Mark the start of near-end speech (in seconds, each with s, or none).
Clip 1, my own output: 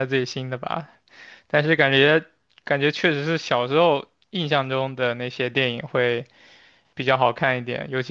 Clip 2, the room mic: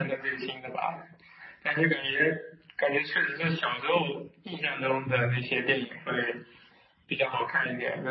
5.0 s